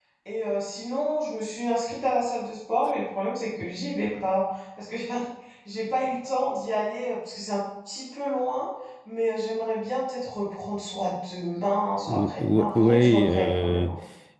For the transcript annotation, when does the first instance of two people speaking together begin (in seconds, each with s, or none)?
12.1 s